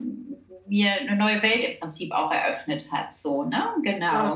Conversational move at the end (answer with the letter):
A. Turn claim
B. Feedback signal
A